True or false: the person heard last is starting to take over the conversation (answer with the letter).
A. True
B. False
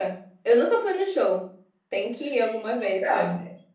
A